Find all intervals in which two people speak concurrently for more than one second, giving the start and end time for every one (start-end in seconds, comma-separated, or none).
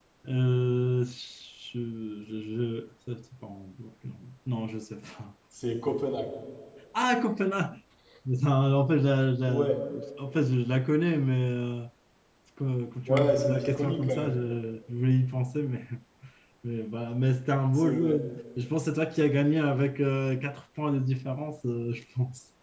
13.1-14.4